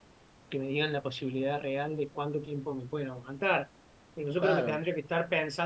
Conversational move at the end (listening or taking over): listening